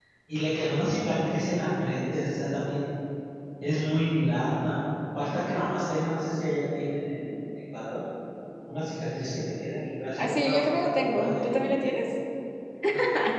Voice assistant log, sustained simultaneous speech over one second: present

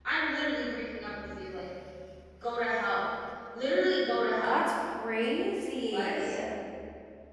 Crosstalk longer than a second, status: none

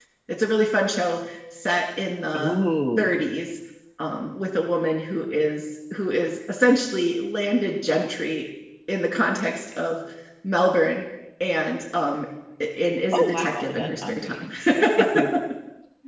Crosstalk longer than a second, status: present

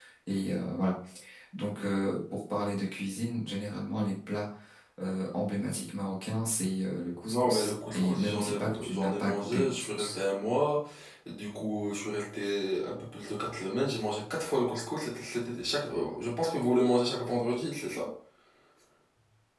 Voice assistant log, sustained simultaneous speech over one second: present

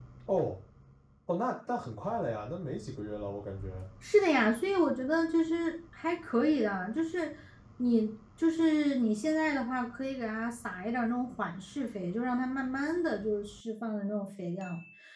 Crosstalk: none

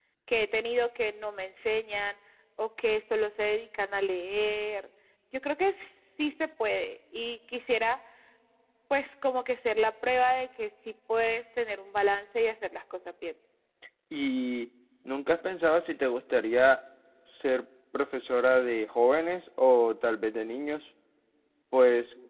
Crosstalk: none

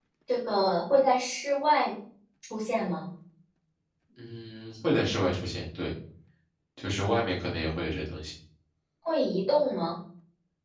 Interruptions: none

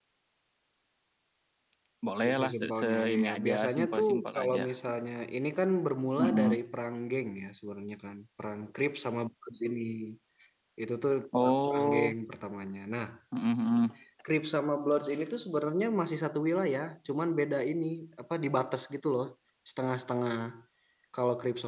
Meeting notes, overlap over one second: present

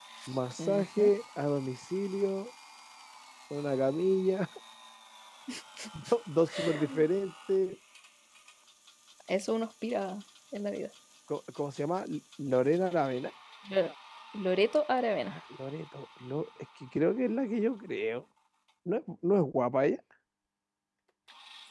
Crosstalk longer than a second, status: none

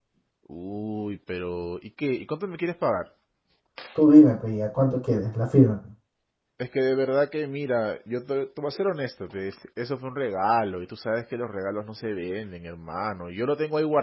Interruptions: none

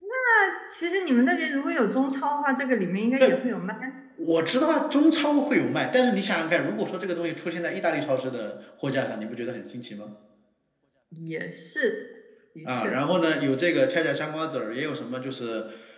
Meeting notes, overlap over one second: none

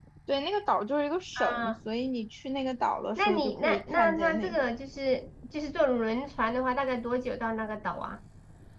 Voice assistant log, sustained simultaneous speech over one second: present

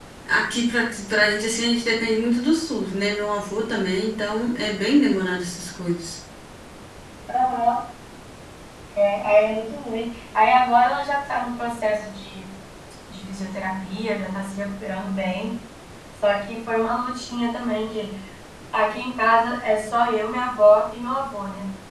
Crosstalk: none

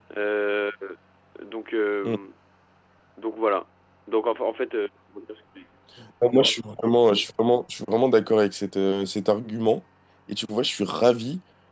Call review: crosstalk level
none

